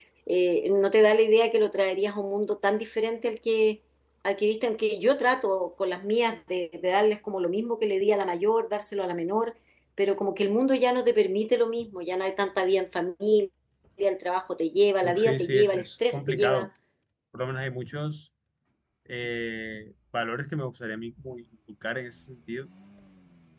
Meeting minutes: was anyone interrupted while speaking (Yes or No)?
Yes